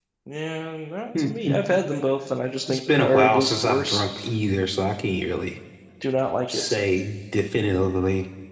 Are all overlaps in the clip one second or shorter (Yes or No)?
No